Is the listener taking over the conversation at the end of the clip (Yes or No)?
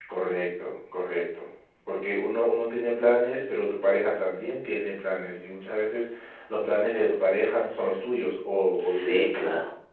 Yes